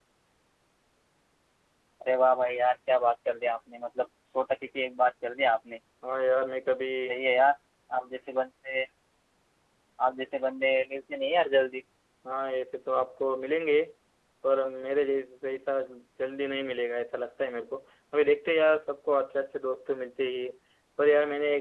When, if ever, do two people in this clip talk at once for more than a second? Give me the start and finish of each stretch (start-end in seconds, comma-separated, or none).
none